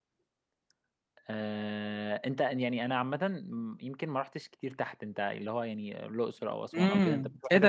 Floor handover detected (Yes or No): Yes